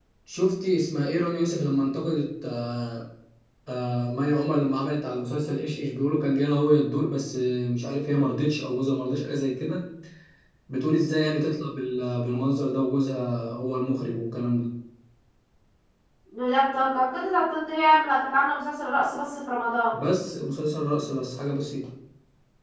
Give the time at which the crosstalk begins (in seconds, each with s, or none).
none